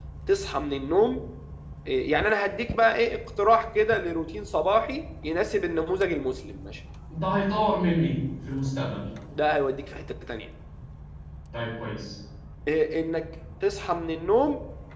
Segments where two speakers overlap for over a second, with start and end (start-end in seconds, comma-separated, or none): none